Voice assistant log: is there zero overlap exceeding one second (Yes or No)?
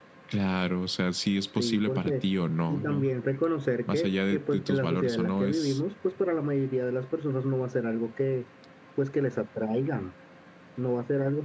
No